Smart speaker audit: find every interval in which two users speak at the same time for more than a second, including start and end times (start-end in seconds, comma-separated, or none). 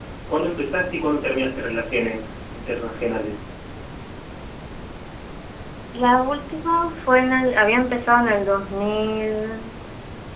none